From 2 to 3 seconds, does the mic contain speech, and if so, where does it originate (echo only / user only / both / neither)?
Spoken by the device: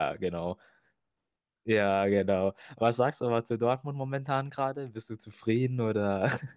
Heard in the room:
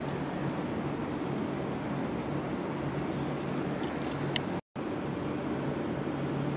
neither